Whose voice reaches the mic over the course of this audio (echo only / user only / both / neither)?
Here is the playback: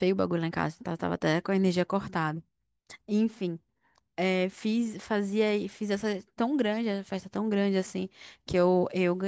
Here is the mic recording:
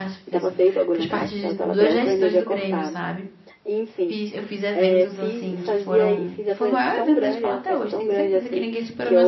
both